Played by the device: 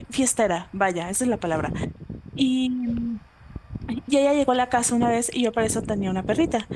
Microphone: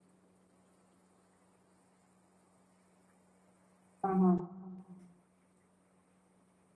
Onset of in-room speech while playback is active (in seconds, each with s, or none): 4.0 s